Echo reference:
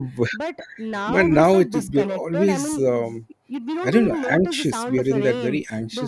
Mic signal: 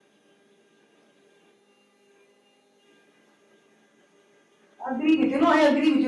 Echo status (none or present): none